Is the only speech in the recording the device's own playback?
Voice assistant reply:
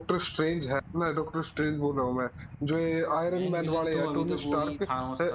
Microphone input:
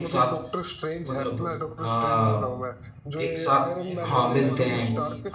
No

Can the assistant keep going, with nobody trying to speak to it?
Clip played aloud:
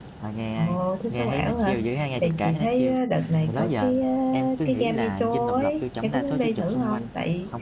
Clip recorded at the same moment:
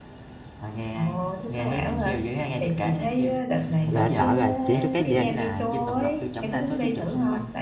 No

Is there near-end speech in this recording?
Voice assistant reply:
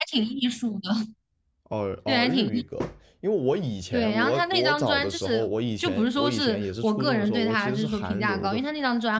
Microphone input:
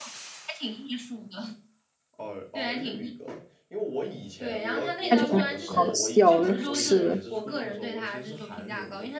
Yes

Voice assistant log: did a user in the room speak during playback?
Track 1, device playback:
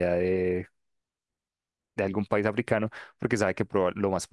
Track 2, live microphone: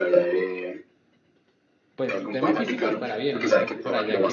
Yes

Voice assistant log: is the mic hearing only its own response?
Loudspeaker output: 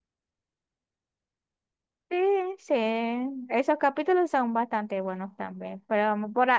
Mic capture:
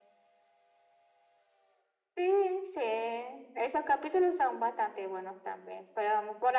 Yes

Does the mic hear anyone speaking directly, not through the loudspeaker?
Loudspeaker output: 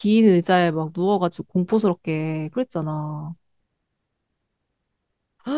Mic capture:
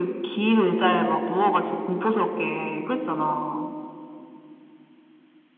No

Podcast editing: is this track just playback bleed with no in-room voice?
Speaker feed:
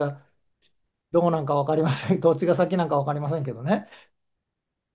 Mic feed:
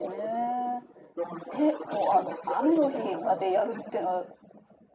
No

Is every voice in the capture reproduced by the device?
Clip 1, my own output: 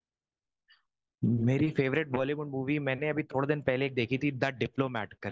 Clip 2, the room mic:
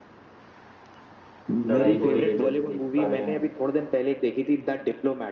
No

